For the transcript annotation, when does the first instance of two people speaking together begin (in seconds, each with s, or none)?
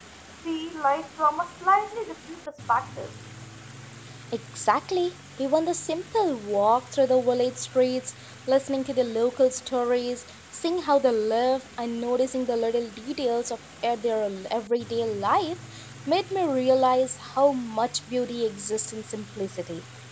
none